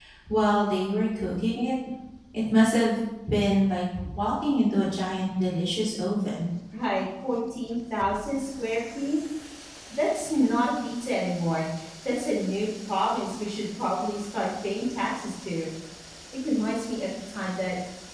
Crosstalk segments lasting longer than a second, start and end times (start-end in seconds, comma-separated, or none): none